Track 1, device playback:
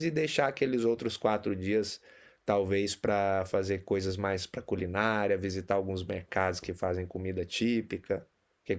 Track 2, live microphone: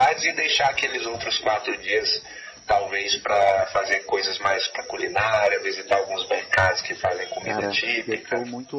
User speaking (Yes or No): Yes